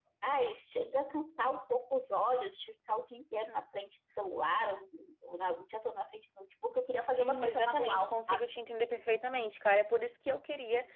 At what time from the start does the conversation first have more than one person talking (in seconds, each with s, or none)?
7.0 s